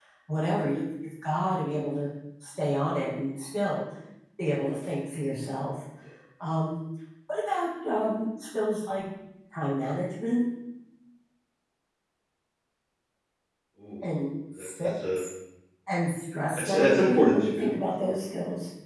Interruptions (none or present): present